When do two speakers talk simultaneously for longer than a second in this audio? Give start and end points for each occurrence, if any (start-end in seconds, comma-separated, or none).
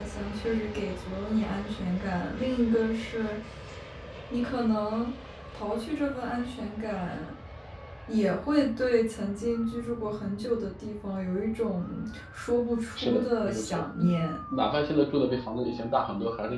13.0-14.2